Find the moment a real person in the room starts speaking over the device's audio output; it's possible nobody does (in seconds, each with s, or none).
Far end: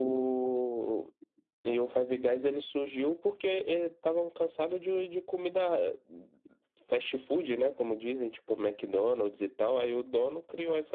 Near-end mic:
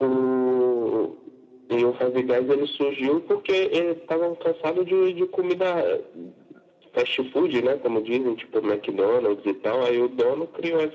none